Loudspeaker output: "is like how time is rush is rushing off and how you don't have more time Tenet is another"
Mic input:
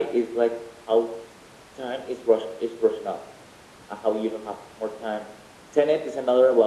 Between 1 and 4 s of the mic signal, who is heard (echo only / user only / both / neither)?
echo only